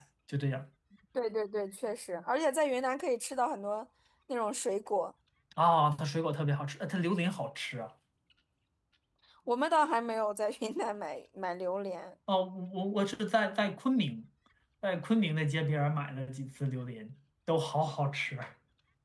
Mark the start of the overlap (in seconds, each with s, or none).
none